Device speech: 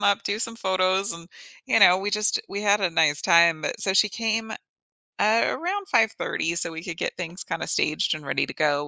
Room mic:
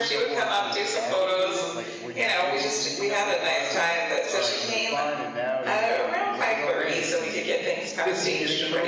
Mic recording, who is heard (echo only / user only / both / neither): both